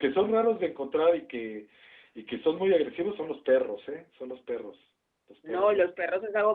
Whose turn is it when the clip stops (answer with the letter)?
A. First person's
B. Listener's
B